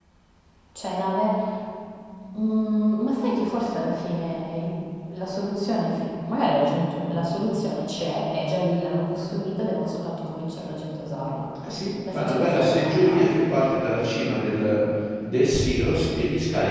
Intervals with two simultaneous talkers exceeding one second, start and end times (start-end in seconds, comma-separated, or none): 12.1-13.6